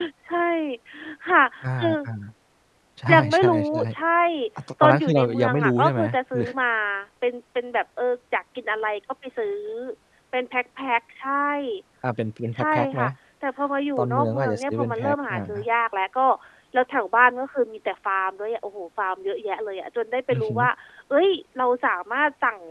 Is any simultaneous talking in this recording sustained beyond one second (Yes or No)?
Yes